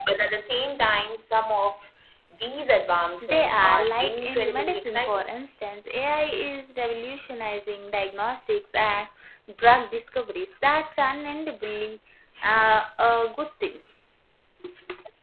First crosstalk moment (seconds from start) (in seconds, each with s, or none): 3.2 s